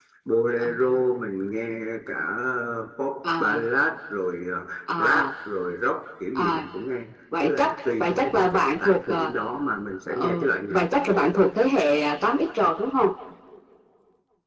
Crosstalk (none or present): present